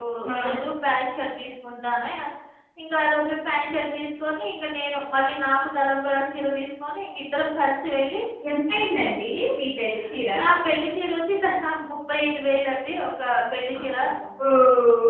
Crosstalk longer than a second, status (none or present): none